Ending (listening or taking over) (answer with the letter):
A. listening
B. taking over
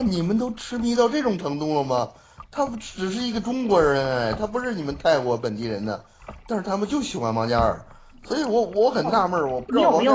B